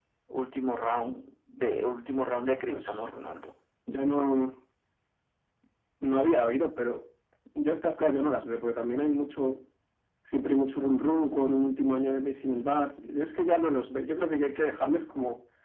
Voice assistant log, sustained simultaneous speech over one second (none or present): none